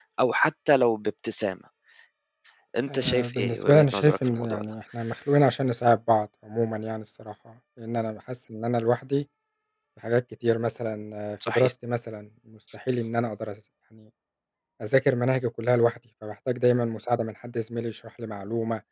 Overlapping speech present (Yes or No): Yes